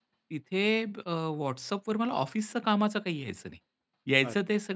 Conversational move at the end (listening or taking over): listening